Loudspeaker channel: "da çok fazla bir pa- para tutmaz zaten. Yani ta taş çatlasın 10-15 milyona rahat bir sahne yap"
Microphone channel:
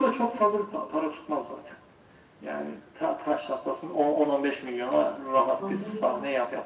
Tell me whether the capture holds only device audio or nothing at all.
No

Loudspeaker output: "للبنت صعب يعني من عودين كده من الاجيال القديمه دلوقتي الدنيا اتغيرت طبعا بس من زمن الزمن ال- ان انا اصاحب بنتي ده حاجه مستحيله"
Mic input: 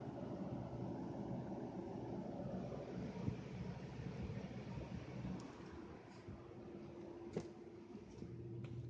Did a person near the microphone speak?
No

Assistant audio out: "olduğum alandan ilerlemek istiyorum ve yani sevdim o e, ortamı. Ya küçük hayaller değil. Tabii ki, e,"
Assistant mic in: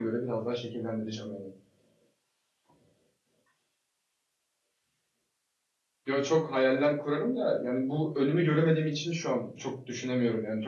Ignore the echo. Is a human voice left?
Yes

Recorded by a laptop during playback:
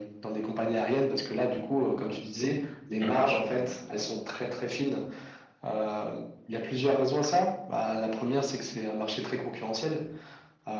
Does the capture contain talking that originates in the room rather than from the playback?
Yes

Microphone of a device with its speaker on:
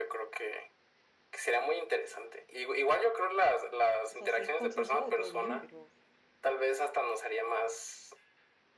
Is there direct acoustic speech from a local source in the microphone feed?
Yes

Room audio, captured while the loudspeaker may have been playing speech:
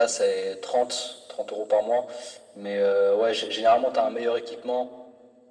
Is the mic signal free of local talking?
Yes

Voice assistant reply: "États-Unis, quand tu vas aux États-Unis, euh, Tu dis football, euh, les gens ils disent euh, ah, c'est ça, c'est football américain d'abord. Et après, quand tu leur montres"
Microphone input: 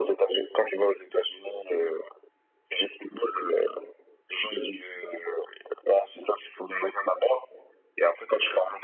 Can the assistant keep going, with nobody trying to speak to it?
Yes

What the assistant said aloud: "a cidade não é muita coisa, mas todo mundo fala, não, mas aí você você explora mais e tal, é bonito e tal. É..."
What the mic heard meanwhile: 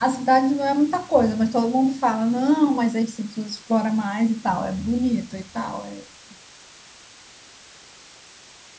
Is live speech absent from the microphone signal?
Yes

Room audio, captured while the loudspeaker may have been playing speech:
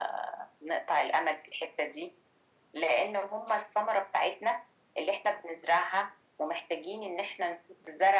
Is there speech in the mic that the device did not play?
No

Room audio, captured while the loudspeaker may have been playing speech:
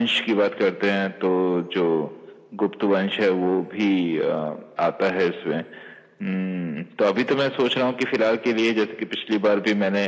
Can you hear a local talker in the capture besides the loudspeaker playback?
No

